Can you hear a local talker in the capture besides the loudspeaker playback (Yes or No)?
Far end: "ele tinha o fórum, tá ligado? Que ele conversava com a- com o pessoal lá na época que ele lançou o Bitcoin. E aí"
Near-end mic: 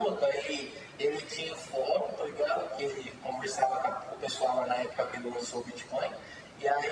No